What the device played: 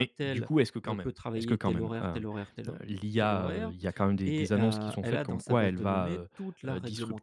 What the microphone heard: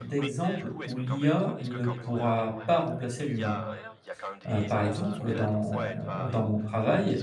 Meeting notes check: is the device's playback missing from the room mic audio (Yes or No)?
No